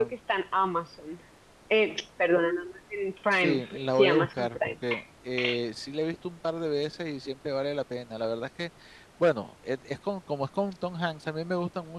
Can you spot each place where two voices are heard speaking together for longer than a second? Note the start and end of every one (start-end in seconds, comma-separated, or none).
3.3-4.7